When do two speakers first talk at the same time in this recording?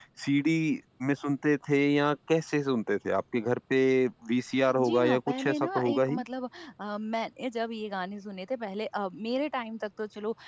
4.8 s

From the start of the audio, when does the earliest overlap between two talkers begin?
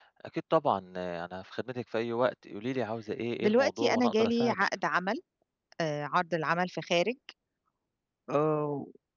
3.4 s

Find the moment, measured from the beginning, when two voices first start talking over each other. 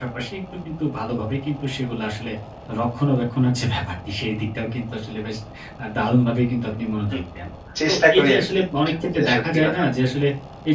7.9 s

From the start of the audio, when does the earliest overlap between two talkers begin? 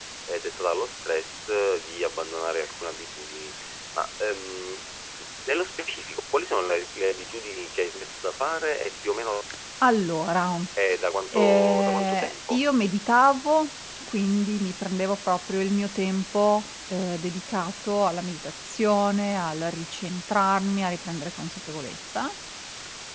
11.3 s

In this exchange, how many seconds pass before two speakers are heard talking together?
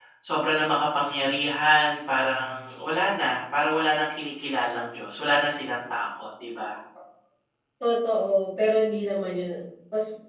none

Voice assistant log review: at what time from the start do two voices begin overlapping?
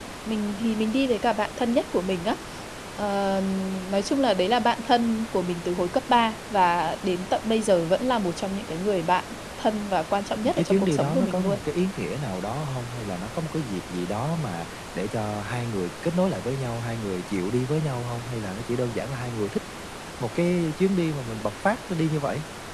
10.3 s

